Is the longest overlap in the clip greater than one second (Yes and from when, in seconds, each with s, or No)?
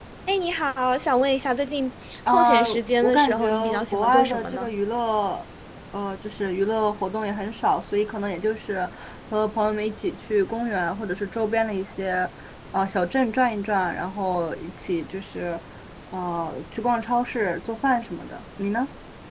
Yes, from 2.3 s